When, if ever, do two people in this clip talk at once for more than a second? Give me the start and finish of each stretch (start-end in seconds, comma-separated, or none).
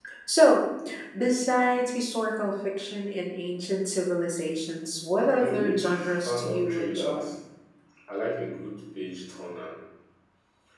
5.4-7.3